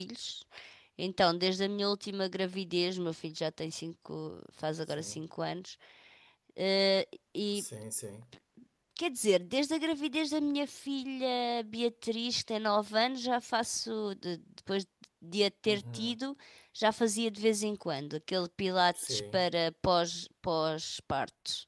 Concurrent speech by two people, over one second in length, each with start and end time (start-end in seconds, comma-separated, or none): none